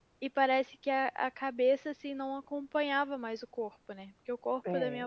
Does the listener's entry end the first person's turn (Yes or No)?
No